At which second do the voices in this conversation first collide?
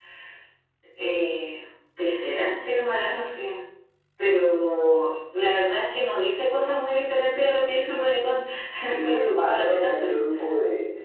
8.9 s

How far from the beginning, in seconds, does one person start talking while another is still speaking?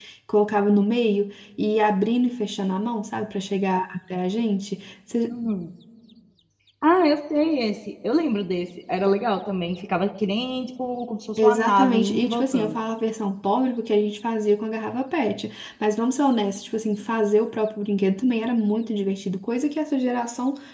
11.4 s

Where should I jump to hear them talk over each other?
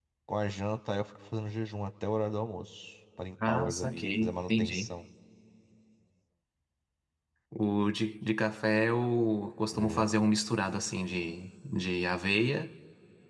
3.5 s

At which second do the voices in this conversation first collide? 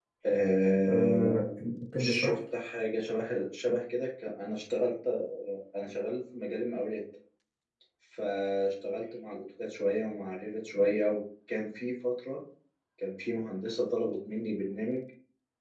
0.9 s

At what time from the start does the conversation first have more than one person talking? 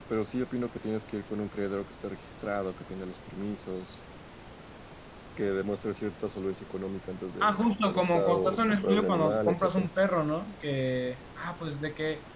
7.4 s

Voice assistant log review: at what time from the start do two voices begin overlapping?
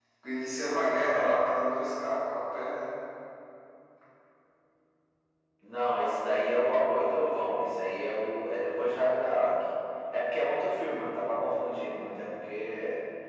none

